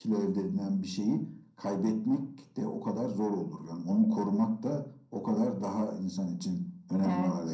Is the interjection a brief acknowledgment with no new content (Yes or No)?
No